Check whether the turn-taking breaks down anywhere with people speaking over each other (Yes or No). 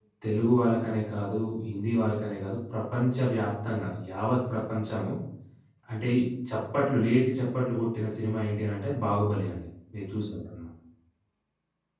No